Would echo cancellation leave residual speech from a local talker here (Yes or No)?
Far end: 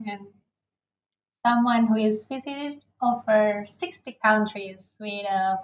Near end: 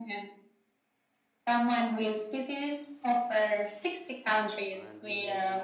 Yes